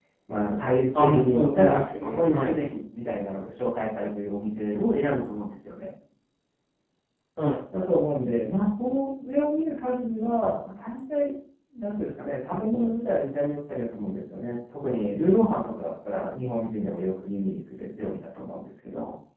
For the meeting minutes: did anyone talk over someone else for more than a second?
Yes, from 1.0 s

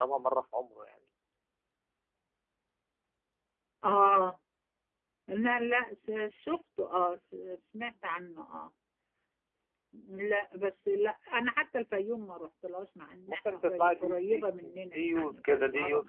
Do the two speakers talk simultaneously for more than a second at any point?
Yes, from 13.3 s

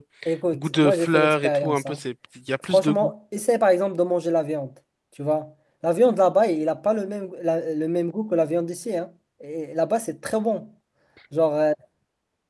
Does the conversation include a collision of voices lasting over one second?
Yes, from 0.5 s

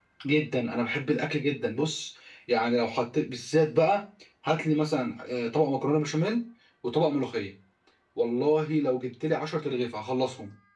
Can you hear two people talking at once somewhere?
No

